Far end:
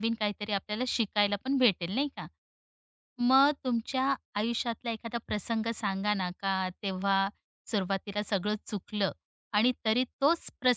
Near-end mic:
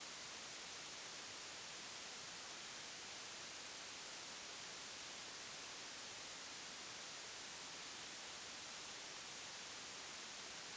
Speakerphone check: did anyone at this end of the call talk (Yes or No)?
No